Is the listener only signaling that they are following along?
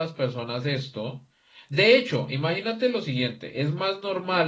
Yes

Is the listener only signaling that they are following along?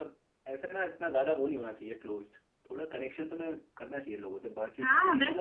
No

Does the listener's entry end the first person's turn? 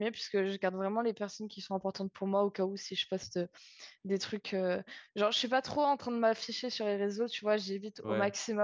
No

